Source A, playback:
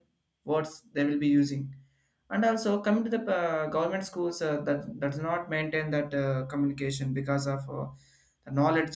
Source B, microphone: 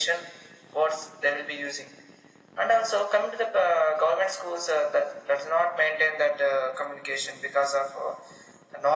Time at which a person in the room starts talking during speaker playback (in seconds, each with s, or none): none